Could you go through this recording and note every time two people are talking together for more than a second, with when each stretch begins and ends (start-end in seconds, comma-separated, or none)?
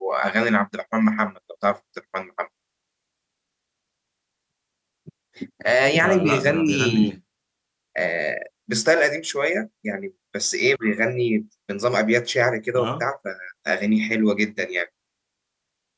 5.9-7.2